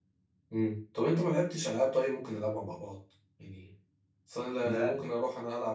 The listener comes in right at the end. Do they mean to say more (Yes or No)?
No